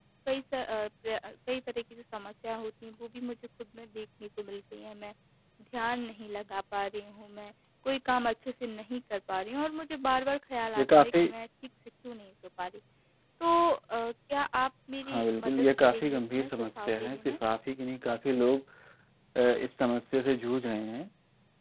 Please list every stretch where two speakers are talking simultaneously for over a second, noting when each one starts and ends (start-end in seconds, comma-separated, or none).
15.0-17.4